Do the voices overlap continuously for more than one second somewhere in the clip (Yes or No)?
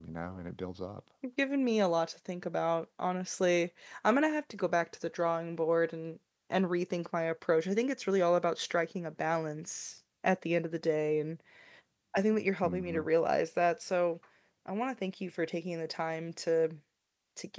No